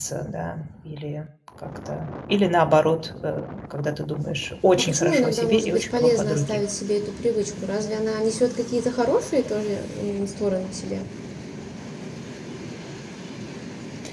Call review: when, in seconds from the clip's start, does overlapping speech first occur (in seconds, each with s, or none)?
4.8 s